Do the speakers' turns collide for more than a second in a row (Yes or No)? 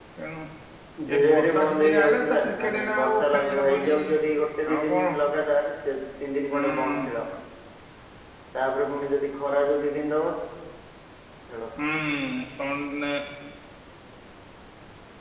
Yes